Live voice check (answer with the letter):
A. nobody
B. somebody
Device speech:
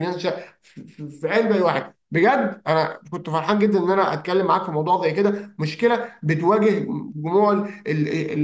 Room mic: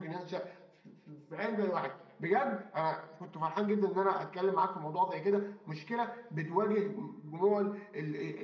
A